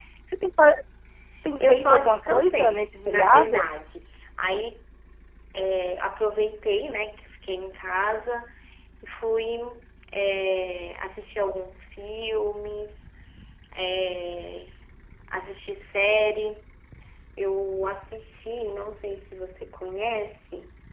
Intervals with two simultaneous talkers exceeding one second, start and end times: 1.6-3.7

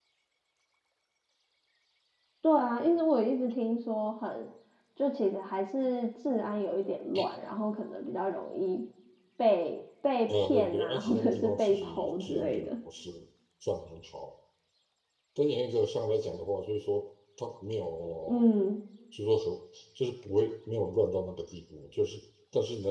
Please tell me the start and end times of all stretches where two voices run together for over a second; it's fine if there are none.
10.3-12.7

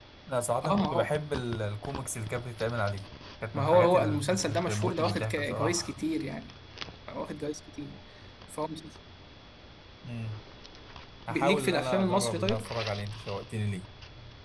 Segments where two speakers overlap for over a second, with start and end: 3.5-5.9, 11.3-12.7

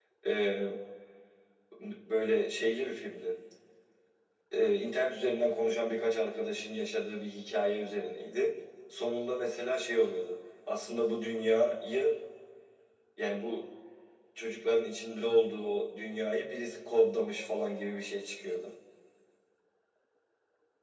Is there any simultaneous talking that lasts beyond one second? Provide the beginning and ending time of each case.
none

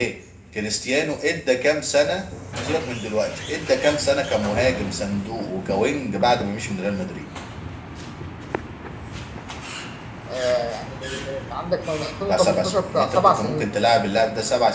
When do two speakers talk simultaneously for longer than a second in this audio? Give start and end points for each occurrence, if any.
12.3-13.7

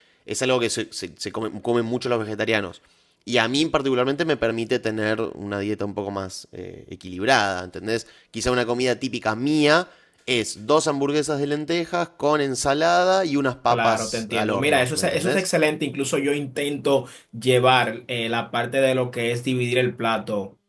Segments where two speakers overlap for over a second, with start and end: 13.7-15.4

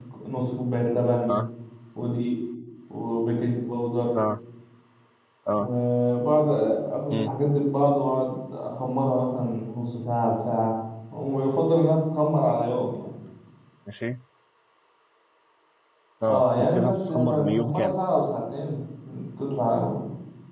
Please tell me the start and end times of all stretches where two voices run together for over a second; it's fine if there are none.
16.3-18.0

